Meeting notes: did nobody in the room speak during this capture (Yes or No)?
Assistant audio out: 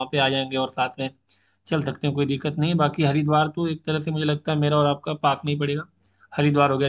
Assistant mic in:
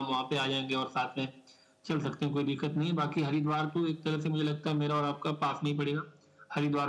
Yes